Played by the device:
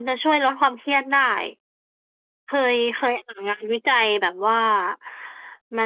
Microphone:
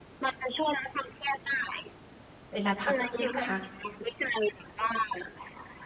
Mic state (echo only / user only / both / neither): both